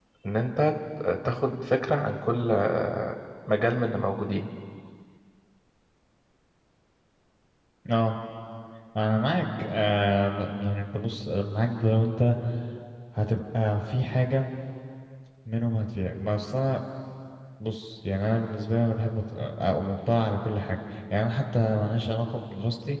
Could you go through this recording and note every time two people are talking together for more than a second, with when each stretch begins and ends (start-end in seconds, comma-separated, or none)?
none